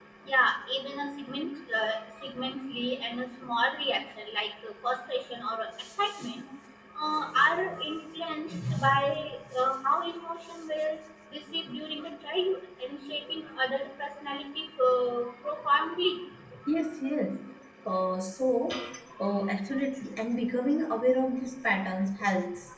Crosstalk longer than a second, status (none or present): none